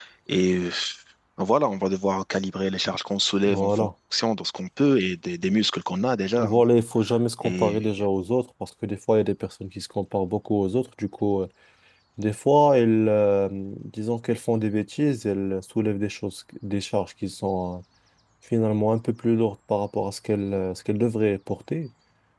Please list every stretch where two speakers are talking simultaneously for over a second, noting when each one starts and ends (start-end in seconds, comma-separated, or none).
none